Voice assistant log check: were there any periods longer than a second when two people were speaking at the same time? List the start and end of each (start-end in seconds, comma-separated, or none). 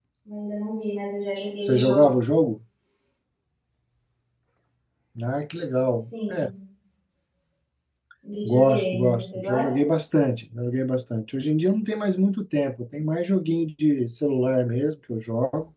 8.4-9.7